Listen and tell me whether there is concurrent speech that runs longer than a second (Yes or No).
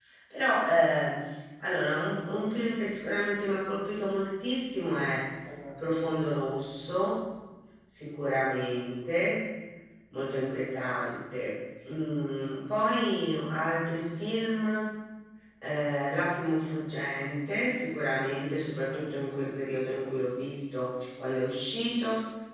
No